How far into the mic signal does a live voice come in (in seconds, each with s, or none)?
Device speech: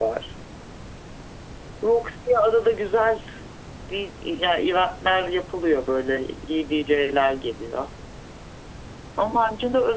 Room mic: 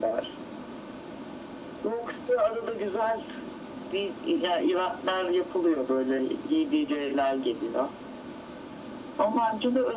none